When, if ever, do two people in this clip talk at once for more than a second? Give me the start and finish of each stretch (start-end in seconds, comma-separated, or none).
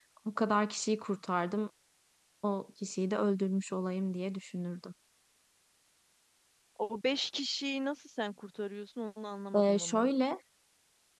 none